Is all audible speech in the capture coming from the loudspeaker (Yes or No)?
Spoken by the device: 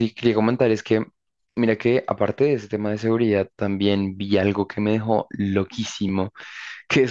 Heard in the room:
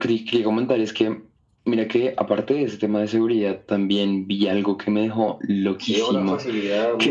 No